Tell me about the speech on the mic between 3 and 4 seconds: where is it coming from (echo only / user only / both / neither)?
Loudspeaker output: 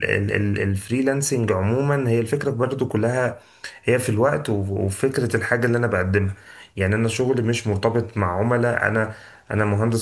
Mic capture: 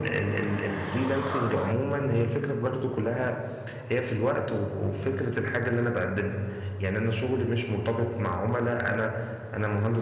echo only